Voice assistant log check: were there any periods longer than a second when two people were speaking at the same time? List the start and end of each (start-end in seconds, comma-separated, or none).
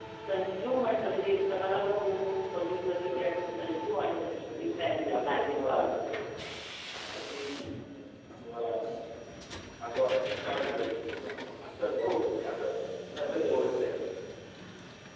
4.4-5.9